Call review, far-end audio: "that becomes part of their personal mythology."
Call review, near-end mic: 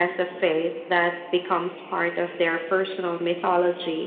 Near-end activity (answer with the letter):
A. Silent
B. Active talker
A